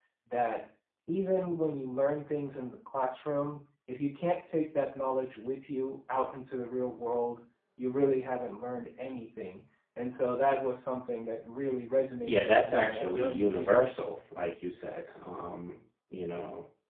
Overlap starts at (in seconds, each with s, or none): 12.2 s